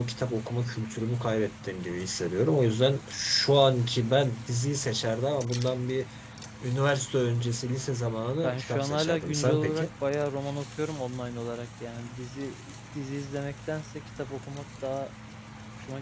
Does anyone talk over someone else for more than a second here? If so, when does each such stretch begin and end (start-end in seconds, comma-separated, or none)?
8.4-9.9